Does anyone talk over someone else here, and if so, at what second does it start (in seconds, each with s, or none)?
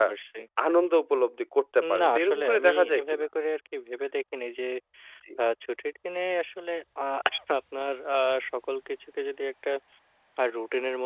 1.8 s